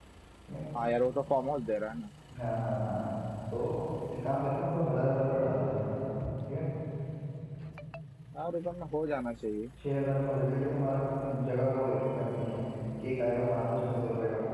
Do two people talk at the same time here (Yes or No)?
No